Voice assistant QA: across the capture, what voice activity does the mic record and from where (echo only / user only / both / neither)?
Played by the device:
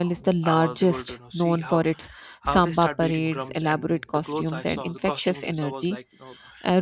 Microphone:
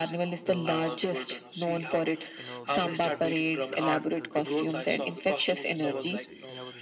both